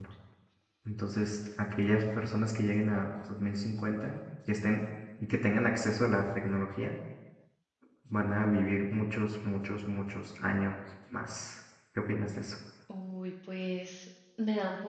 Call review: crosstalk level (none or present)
none